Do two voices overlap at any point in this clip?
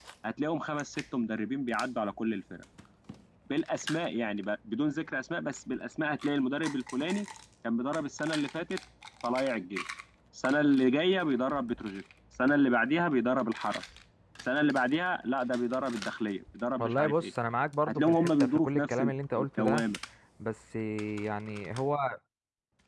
Yes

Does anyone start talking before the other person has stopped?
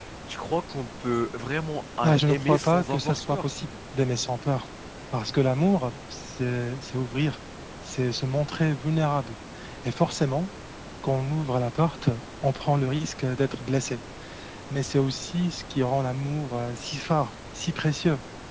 Yes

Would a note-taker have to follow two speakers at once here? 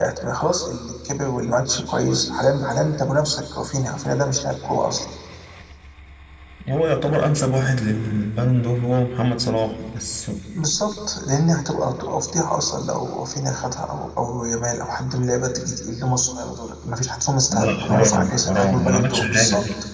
Yes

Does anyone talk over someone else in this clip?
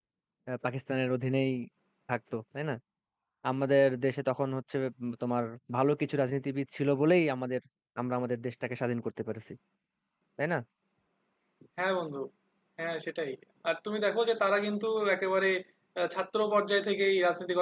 No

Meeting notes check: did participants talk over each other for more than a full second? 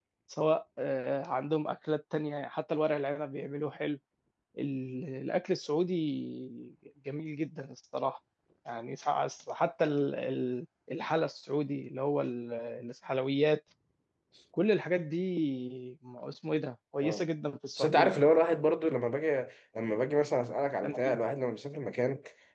No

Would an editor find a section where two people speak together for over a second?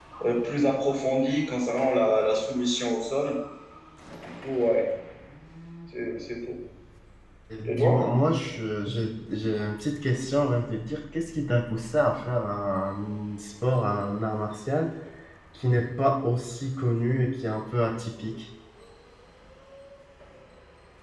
No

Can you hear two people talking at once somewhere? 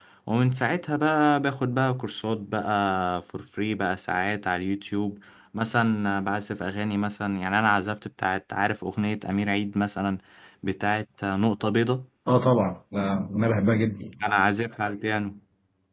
No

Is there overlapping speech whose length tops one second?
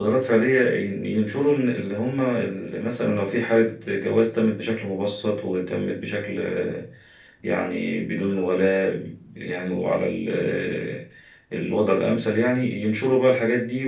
No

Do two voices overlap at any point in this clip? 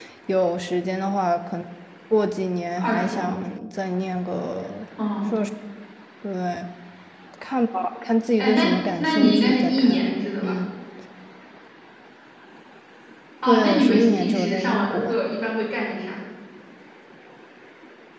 Yes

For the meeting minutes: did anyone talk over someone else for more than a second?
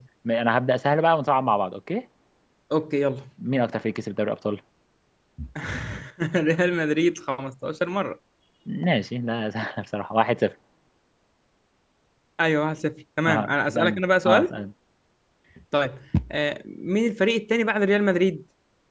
Yes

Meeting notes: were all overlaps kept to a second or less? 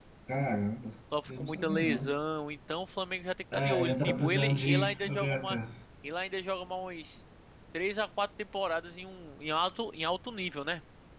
No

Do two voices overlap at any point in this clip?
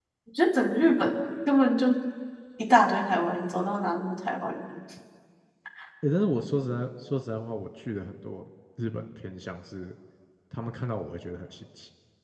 No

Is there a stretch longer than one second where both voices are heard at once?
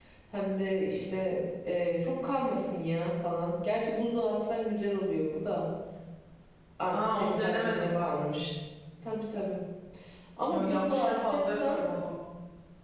Yes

